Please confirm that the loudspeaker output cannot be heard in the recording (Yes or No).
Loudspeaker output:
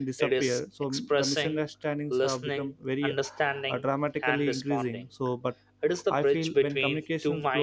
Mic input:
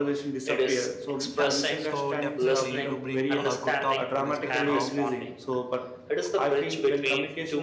No